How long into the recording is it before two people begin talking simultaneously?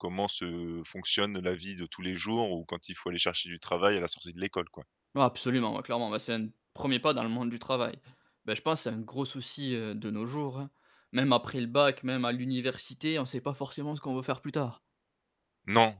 none

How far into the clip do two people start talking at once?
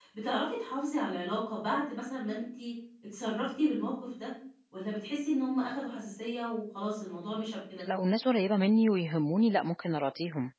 none

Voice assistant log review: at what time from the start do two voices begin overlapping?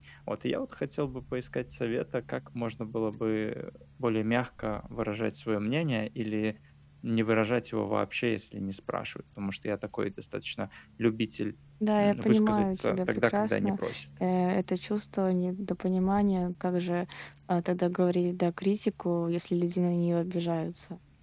12.0 s

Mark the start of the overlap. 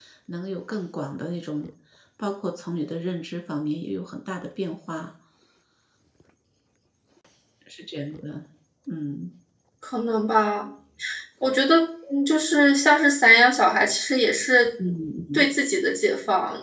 none

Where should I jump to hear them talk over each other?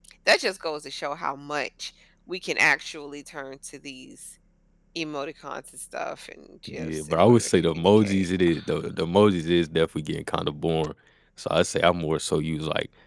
6.7 s

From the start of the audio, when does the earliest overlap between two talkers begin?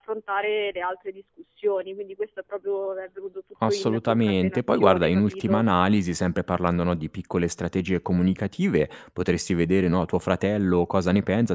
3.6 s

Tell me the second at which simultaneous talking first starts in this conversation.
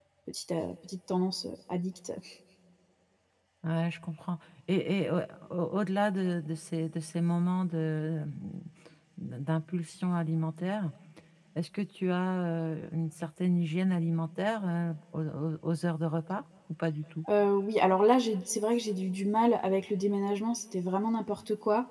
none

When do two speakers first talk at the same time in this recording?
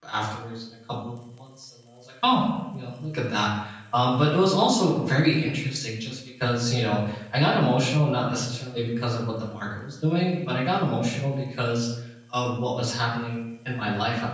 none

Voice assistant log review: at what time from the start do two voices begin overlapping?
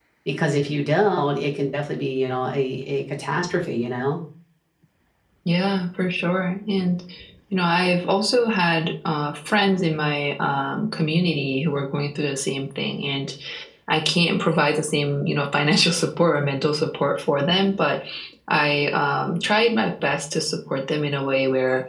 none

